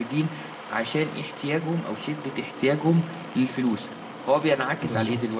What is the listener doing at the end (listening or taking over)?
listening